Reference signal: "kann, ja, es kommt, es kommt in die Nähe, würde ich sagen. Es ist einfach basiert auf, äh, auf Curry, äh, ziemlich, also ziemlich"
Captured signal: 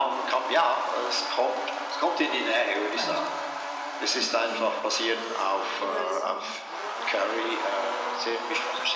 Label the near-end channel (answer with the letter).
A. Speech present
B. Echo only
A